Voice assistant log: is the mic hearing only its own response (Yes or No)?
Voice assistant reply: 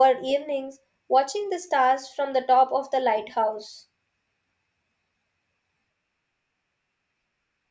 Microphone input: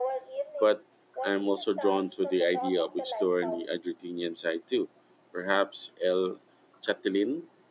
No